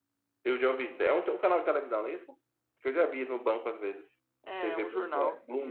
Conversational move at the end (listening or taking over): taking over